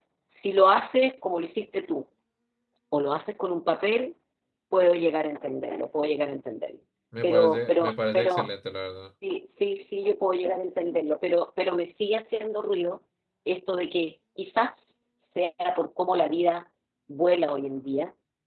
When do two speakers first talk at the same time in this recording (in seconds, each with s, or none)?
7.2 s